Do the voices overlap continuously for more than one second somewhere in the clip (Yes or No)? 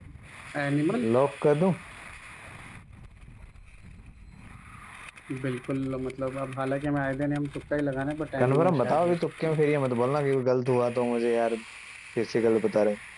Yes